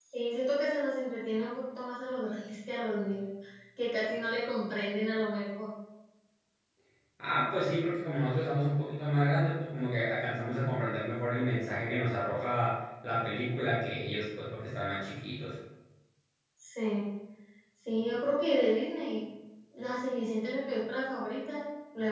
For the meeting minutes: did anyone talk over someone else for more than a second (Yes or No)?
No